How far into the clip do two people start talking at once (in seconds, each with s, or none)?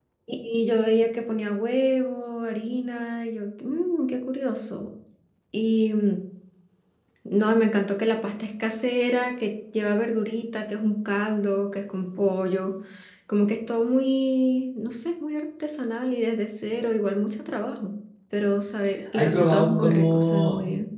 19.1 s